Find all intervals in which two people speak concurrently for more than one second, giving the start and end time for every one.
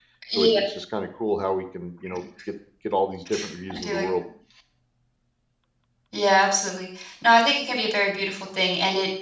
none

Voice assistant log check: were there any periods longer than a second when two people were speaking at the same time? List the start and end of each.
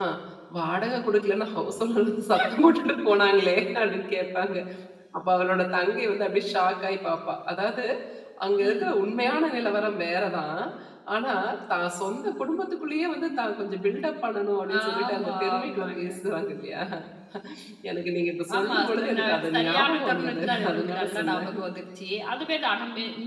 14.8-16.1, 18.6-21.5

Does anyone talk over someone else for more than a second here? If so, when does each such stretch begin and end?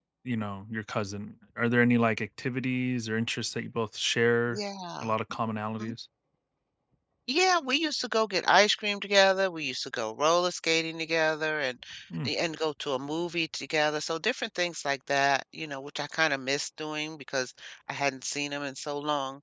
none

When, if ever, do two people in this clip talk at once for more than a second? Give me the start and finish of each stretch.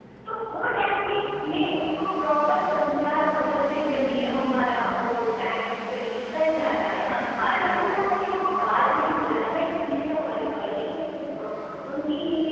none

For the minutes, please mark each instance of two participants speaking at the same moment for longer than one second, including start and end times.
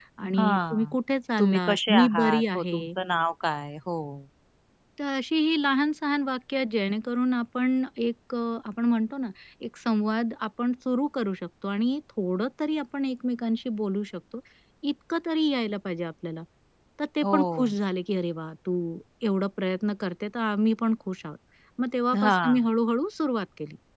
1.4-2.9

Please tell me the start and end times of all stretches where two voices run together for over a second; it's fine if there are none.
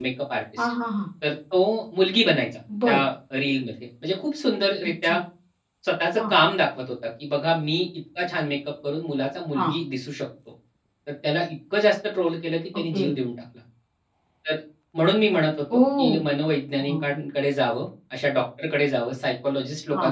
none

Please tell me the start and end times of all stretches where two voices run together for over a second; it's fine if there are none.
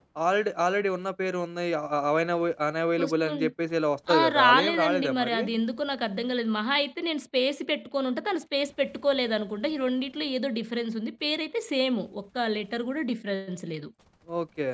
4.2-5.4

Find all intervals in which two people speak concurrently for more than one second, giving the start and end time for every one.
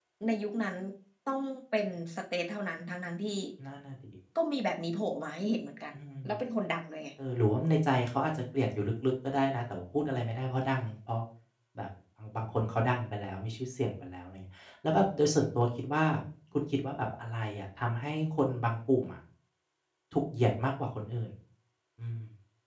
none

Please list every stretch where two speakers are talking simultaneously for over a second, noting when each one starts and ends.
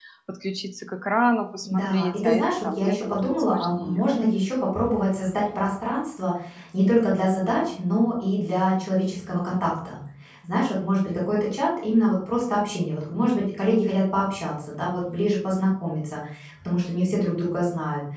1.6-4.5

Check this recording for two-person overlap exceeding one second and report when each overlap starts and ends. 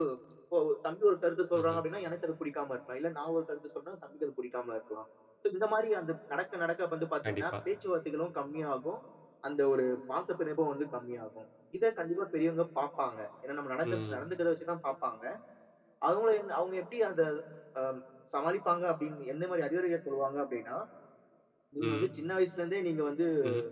none

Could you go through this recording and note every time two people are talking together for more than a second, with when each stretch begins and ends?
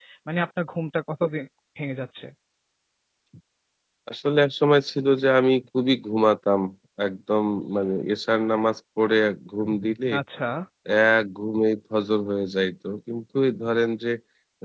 none

